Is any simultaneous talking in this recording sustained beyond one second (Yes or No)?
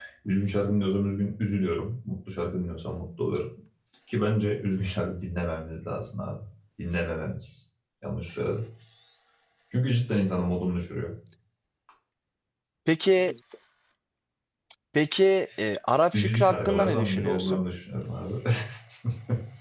Yes